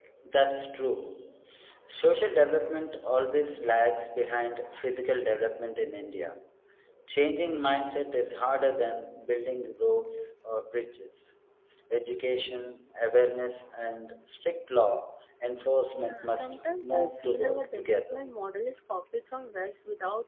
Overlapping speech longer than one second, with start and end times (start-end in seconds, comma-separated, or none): 15.9-18.2